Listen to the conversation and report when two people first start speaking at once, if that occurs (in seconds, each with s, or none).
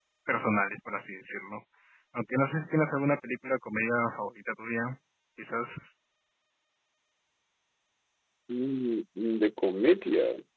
none